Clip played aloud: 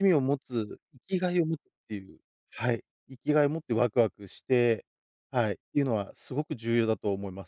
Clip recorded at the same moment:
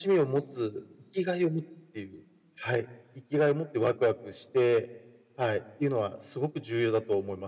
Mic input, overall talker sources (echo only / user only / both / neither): echo only